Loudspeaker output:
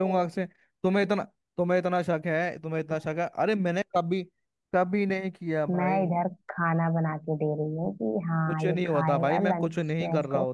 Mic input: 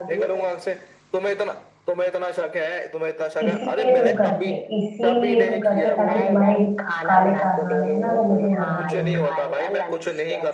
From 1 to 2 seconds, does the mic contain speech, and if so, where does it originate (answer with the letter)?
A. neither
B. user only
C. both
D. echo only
D